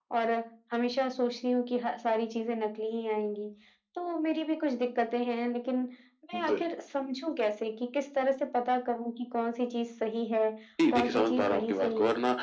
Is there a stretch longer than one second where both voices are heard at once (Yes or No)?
Yes